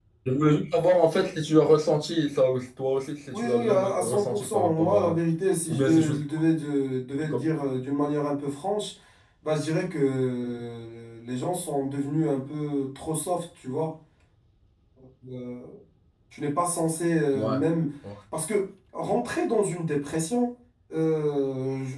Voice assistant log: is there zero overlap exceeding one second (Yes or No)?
No